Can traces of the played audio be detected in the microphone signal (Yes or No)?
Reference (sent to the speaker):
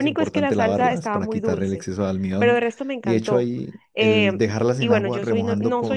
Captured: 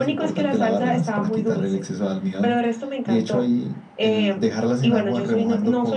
Yes